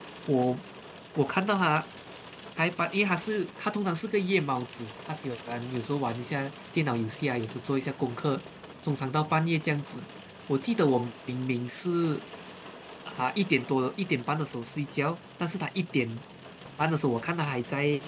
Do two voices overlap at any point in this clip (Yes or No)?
No